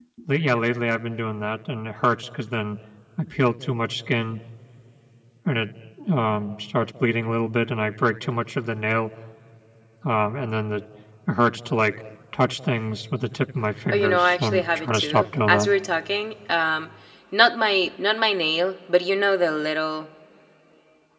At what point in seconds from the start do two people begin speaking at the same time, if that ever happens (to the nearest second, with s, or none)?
14 s